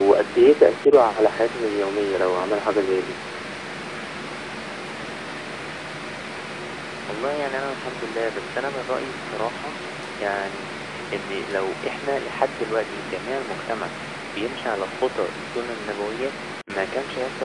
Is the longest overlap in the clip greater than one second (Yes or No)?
No